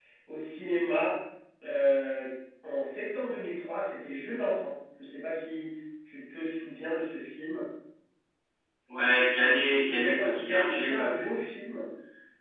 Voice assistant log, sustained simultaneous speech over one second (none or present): present